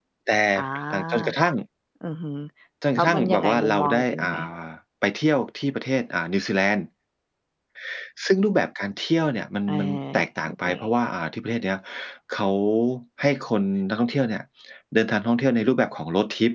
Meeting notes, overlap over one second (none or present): present